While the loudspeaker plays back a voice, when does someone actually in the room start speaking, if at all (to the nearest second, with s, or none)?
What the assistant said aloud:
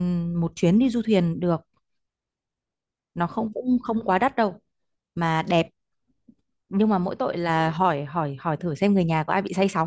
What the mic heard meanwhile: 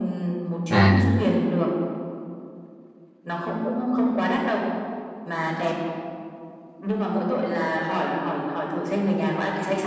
1 s